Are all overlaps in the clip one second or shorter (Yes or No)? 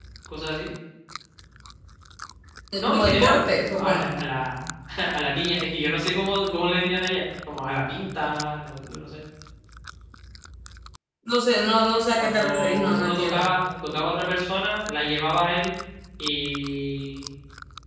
No